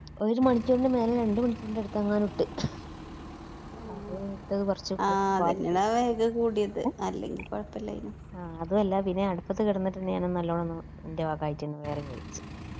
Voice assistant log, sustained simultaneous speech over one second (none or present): none